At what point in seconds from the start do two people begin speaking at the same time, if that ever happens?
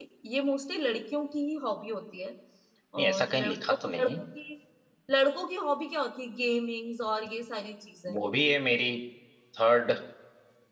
3.0 s

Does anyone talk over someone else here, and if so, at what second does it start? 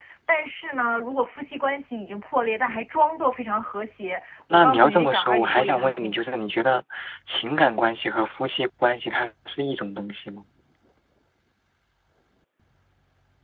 4.5 s

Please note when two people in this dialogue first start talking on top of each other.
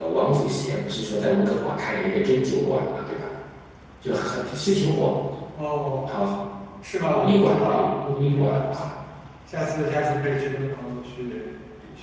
7.2 s

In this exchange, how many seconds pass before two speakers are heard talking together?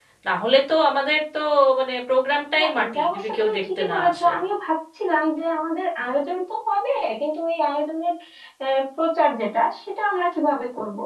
2.6 s

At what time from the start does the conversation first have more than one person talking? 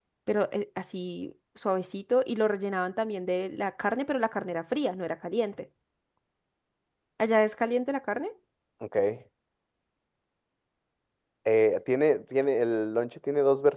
none

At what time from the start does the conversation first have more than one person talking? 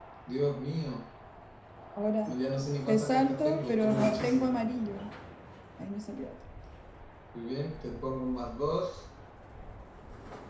2.9 s

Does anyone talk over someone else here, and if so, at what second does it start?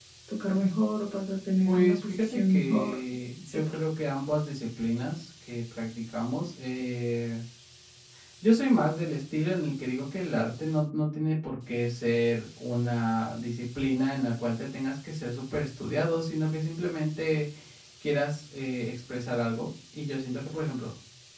1.6 s

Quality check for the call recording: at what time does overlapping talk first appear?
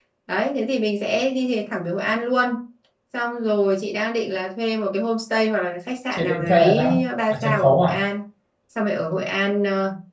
6.1 s

